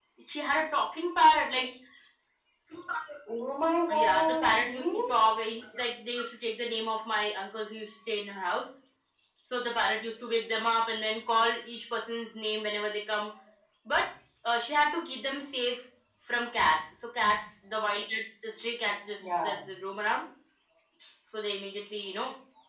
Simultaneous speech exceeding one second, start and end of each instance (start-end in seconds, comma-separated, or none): 3.9-5.2